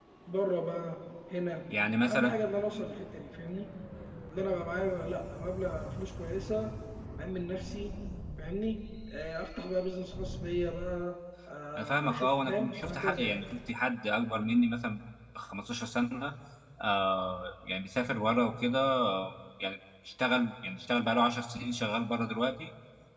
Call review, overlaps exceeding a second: present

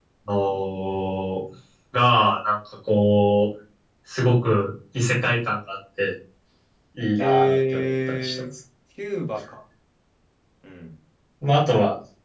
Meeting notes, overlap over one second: present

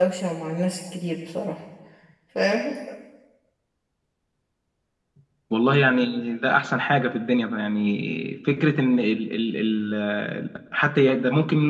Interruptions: none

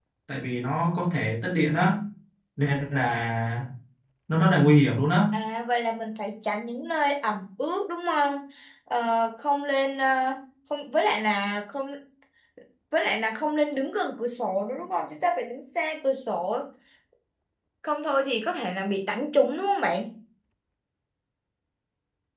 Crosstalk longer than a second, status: none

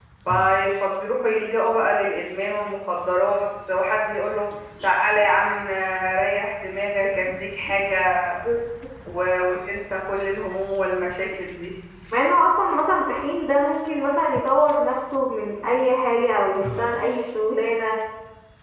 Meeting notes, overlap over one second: none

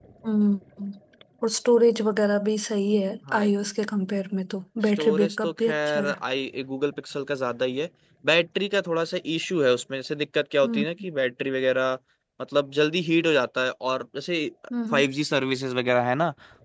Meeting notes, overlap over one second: present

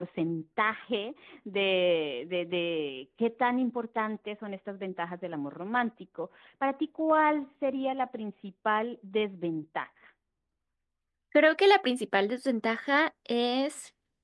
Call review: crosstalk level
none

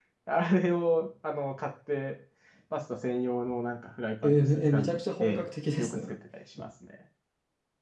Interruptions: present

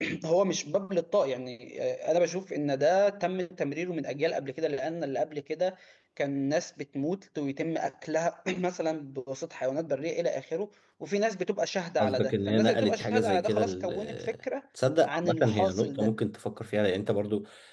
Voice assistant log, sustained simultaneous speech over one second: present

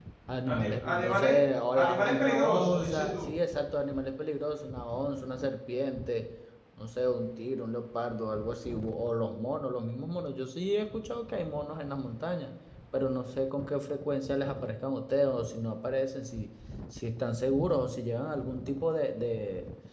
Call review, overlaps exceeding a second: present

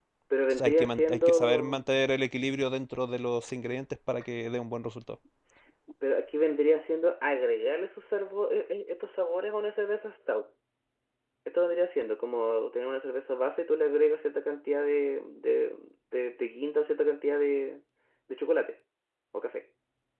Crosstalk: present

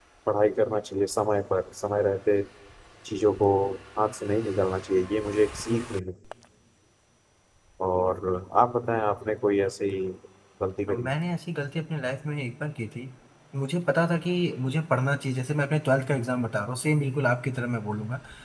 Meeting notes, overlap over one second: none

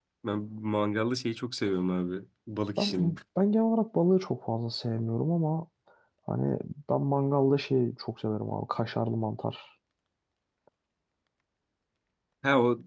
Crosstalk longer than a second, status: none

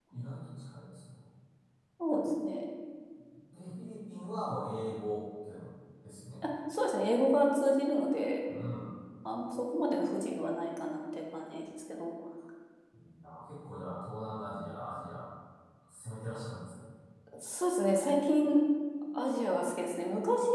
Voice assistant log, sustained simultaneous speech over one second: none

